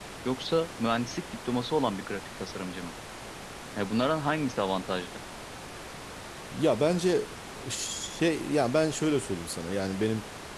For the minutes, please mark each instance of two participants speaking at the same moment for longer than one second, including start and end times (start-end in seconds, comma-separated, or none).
none